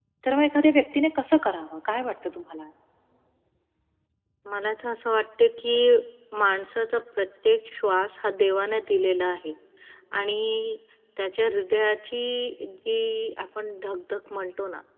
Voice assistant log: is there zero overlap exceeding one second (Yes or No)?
Yes